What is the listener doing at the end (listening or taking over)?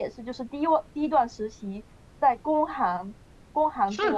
taking over